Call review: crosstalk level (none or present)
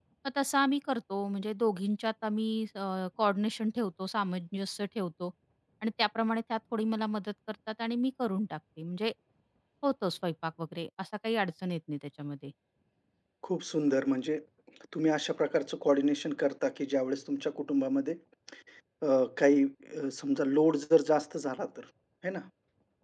none